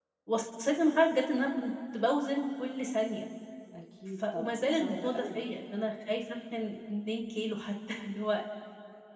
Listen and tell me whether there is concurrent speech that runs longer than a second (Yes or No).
Yes